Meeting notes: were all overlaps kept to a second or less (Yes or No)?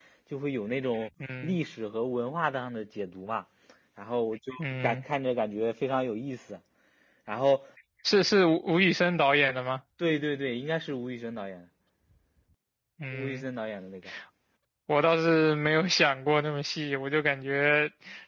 Yes